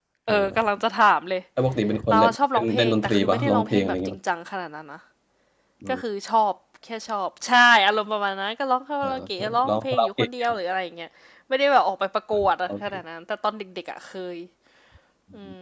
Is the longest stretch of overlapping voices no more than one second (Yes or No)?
No